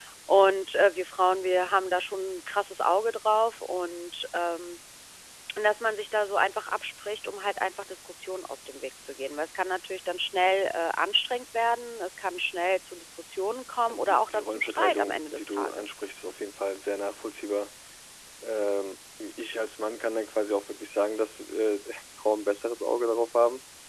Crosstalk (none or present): present